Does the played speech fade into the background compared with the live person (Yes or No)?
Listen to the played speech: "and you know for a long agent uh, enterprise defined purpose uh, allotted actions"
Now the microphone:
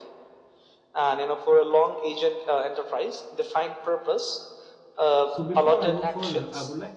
No